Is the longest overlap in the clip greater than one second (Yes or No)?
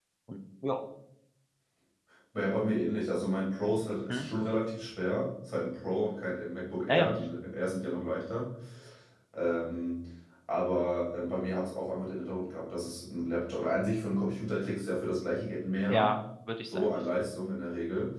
No